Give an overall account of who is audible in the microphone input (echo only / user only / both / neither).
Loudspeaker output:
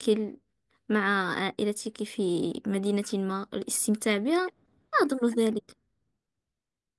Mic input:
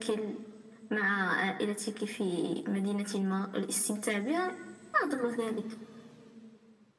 echo only